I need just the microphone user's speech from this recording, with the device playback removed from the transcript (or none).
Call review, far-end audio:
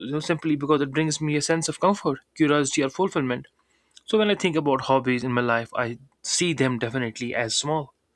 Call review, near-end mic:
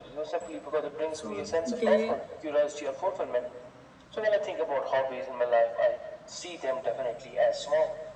So they